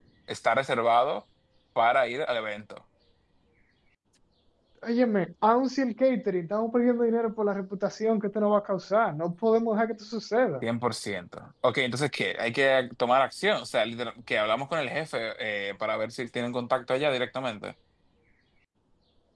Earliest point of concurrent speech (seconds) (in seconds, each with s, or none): none